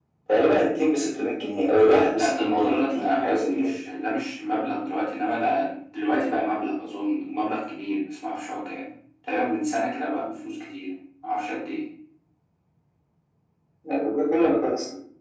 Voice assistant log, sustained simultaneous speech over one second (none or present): present